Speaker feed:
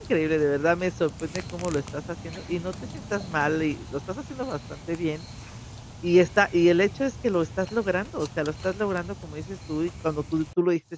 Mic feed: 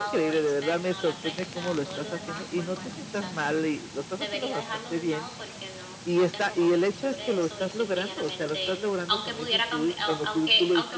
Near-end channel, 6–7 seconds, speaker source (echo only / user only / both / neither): both